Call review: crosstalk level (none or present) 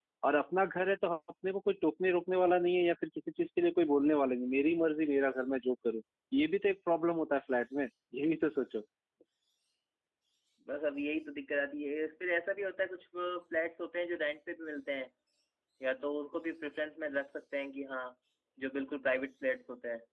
none